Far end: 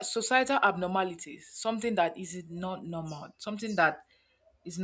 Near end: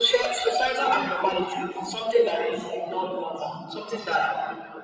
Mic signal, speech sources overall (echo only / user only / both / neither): echo only